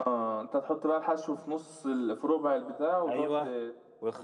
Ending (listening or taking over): taking over